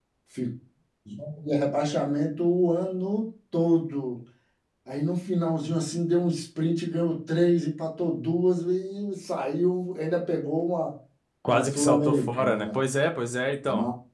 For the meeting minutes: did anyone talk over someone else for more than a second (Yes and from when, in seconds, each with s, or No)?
Yes, from 11.5 s